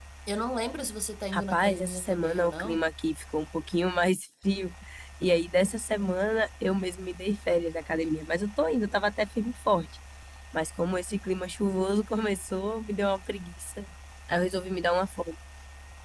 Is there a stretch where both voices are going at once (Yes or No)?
Yes